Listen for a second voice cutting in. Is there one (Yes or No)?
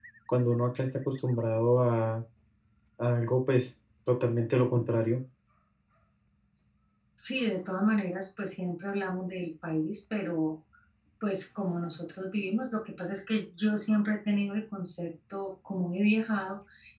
No